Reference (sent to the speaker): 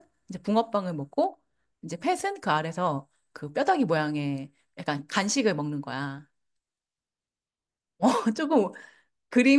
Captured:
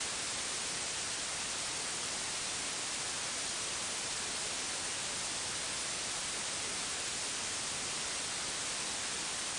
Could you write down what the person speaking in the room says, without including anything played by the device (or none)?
none